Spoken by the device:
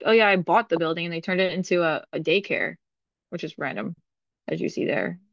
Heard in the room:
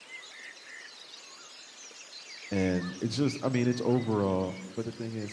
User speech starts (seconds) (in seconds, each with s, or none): 2.5 s